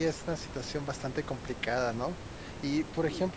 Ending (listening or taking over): listening